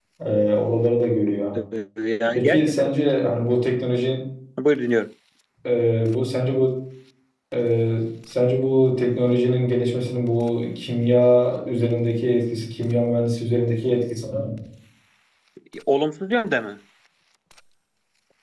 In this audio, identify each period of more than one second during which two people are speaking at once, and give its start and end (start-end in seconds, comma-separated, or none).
none